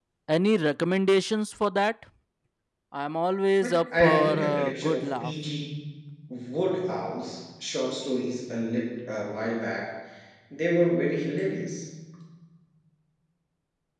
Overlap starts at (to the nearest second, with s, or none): 4 s